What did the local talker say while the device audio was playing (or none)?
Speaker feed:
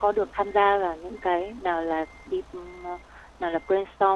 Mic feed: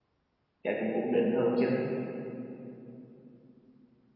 cả cũng ổn định hơn chứ